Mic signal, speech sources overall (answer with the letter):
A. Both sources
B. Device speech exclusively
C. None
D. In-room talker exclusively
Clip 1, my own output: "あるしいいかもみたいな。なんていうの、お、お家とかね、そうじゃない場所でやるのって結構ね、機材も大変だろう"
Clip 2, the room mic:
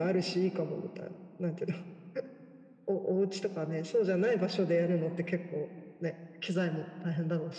B